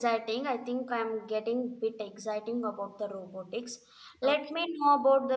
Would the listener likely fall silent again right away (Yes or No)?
Yes